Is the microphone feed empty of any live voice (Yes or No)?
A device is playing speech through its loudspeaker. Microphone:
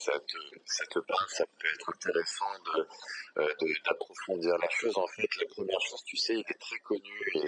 Yes